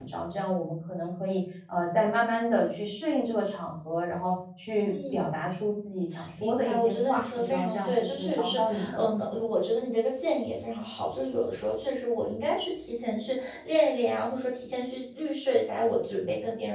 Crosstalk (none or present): present